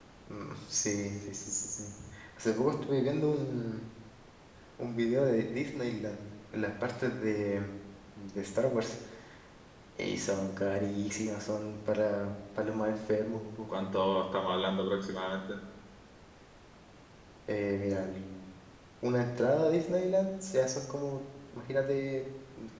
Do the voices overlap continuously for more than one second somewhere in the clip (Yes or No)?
No